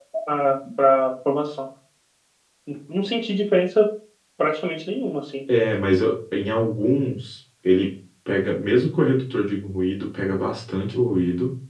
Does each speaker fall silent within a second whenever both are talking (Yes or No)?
Yes